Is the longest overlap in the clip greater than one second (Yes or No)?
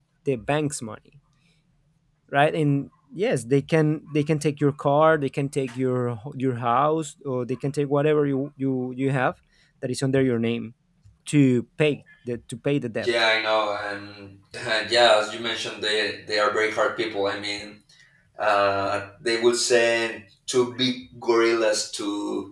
No